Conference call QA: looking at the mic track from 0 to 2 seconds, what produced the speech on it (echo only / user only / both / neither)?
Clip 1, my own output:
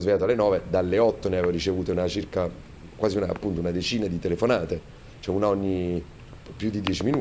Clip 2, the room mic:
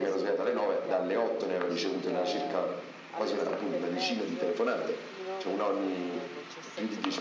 both